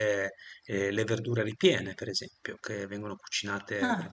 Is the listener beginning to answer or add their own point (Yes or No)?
No